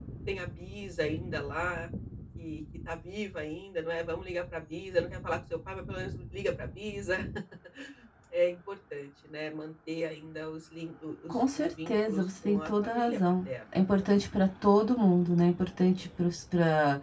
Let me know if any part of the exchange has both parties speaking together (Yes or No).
Yes